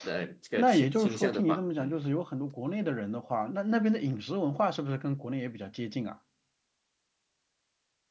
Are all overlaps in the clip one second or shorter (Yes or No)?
No